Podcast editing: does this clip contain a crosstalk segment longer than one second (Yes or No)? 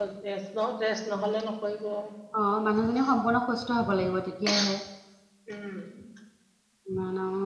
No